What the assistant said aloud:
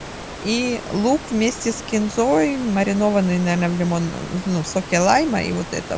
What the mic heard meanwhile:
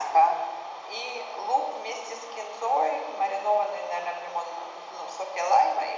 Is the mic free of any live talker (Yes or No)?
Yes